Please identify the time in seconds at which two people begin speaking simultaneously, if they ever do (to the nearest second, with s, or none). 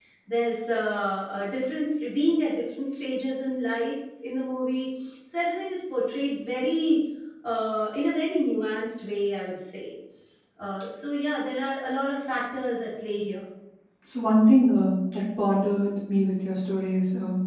none